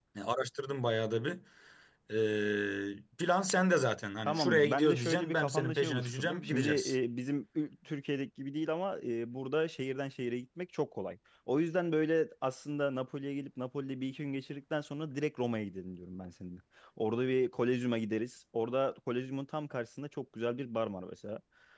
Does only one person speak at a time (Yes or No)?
No